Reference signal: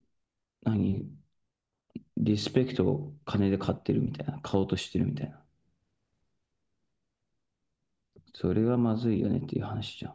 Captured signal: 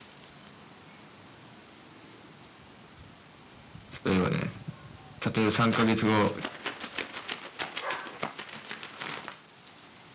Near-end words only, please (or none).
例えばね、例えば3ヶ月後、